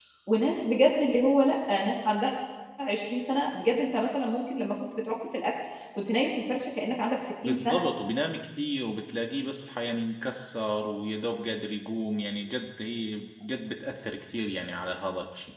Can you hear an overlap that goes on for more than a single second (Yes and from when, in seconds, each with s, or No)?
No